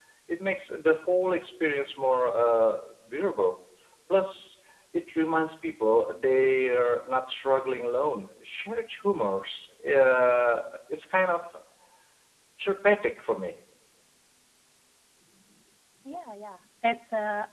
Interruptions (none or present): none